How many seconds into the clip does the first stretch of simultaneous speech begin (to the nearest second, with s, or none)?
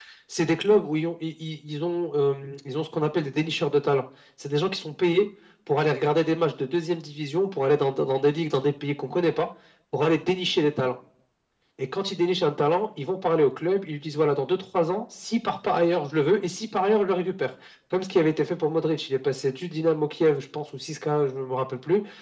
none